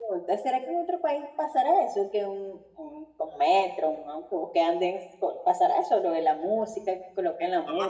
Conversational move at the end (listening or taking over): taking over